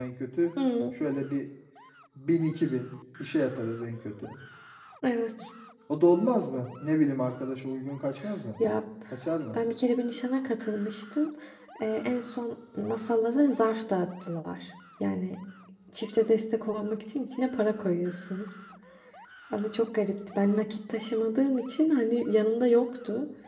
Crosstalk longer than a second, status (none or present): none